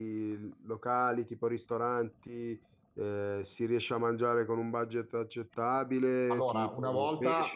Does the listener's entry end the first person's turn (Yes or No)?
Yes